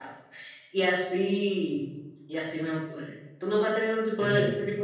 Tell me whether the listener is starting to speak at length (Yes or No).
No